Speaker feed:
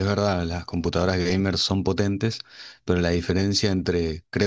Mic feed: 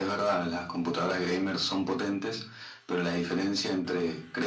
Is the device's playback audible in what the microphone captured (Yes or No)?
Yes